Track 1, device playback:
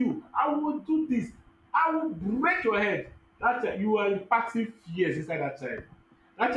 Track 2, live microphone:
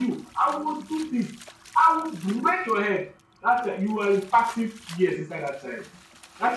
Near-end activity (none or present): none